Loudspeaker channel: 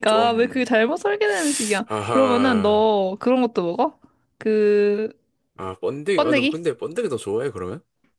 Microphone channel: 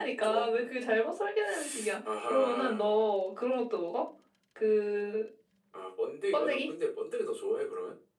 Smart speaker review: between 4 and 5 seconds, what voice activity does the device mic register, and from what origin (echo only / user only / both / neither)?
echo only